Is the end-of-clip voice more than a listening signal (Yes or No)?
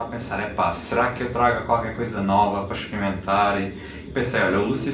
No